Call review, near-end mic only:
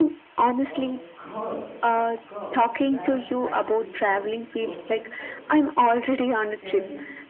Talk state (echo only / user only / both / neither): both